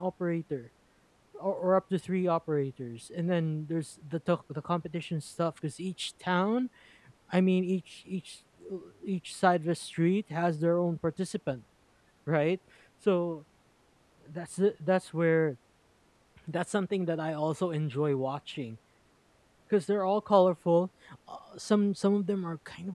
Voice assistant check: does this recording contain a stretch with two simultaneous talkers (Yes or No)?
No